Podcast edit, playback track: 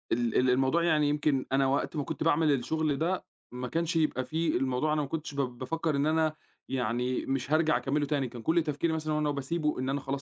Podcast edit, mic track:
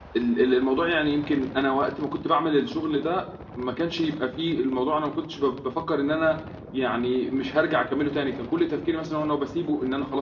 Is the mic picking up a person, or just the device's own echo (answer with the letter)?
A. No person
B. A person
A